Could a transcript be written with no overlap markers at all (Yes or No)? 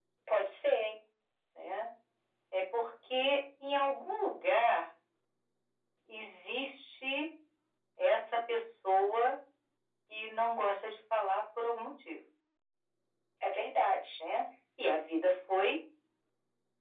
Yes